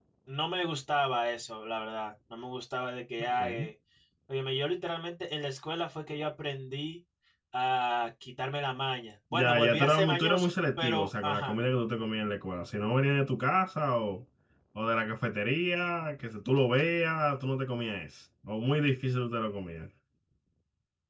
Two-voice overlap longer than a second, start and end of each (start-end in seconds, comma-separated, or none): 9.3-11.6